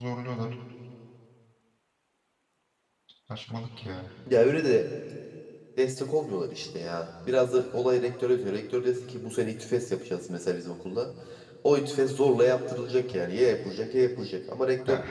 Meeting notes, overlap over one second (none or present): none